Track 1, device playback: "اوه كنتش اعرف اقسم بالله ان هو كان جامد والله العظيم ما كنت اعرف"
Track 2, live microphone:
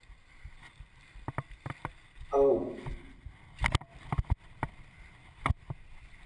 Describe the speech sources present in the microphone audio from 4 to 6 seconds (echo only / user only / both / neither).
neither